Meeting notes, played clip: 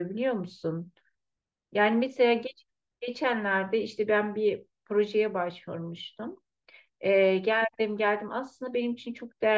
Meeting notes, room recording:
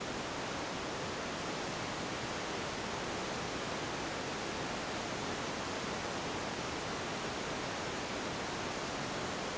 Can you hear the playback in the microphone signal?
No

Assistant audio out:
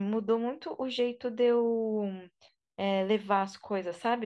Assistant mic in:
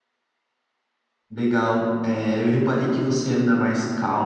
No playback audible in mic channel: Yes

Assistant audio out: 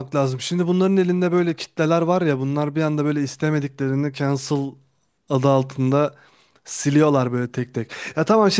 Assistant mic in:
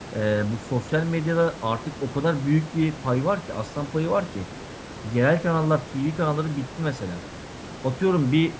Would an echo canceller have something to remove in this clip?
No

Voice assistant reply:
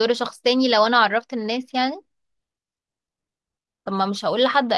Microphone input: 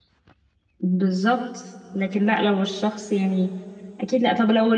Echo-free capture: Yes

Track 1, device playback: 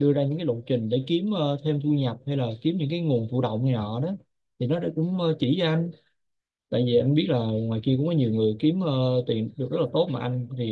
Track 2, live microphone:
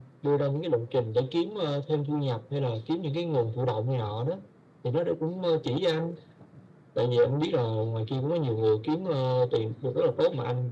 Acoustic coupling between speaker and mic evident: Yes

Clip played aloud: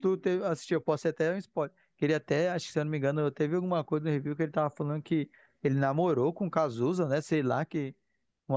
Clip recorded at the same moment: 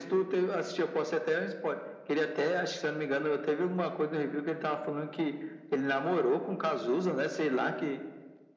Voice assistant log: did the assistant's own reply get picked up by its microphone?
Yes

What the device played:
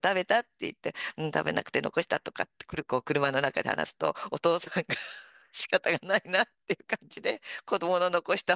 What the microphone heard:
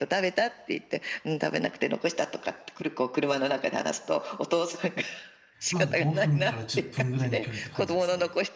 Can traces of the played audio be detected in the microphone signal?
Yes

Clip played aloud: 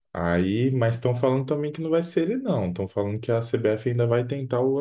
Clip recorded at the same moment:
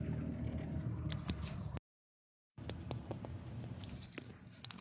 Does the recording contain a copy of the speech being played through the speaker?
No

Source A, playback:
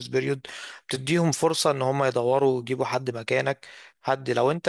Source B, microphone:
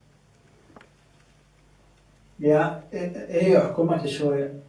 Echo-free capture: Yes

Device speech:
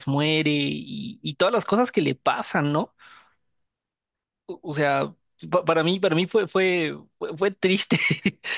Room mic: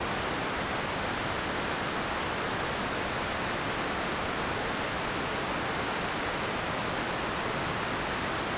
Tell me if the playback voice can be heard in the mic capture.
No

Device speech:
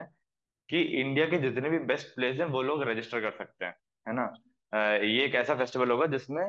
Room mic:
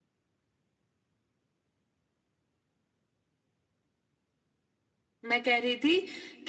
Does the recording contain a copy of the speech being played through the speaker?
No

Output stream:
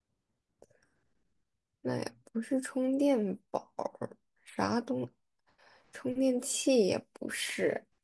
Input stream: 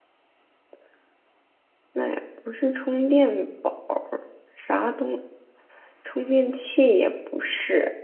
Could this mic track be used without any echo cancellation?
No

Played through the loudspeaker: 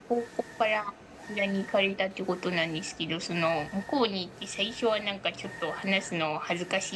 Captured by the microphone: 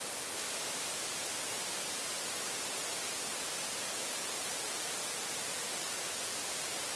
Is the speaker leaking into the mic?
No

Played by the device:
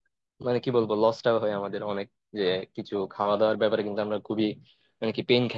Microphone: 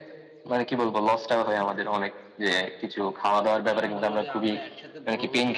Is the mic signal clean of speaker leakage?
No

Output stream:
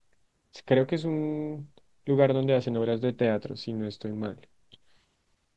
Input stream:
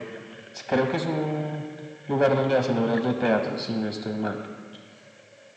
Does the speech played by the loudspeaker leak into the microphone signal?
Yes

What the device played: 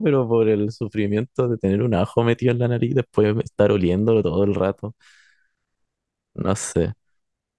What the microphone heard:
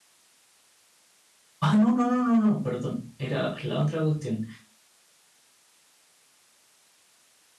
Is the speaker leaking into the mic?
No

